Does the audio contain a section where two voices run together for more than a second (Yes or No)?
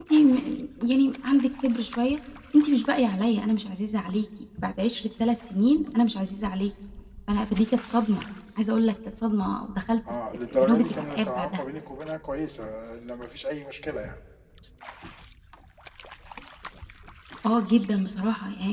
Yes